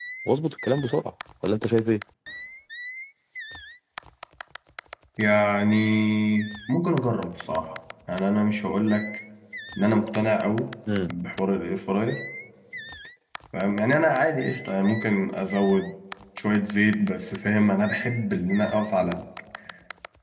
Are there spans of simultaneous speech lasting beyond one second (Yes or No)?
No